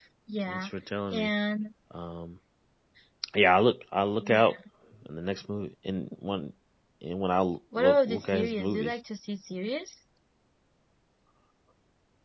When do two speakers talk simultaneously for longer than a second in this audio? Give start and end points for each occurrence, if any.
7.8-9.0

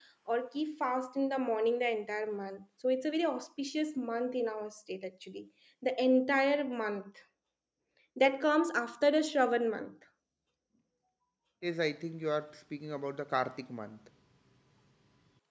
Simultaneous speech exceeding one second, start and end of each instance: none

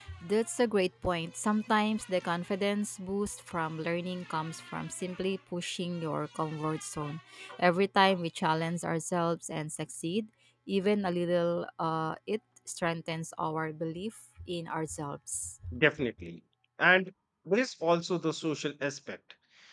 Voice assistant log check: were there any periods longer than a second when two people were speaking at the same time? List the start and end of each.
none

